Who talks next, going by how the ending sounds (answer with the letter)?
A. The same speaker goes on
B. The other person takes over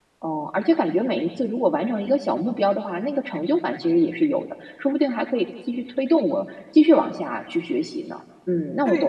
B